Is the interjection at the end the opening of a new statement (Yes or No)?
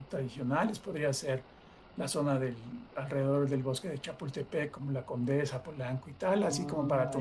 Yes